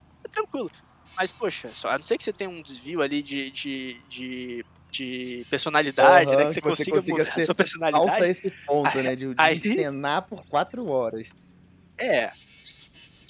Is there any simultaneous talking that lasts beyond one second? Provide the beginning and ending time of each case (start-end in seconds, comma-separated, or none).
6.0-7.5